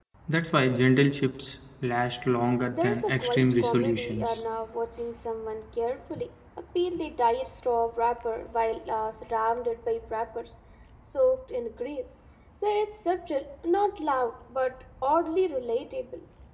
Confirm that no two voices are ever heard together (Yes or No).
No